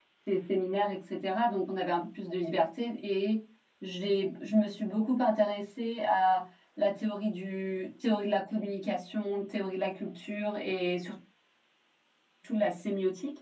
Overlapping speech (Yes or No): No